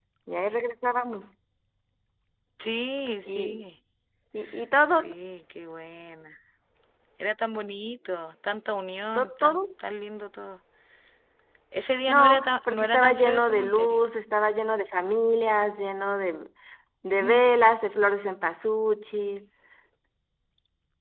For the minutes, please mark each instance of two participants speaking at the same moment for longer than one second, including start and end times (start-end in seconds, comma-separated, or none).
12.1-14.0